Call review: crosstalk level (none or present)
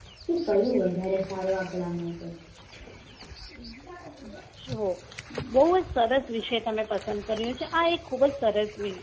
none